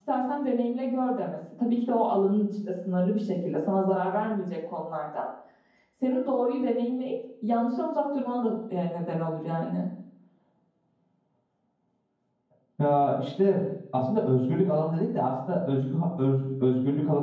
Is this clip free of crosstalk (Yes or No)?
Yes